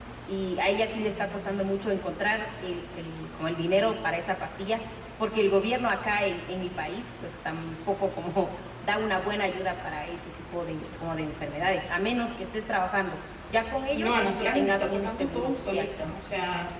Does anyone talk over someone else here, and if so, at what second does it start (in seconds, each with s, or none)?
13.9 s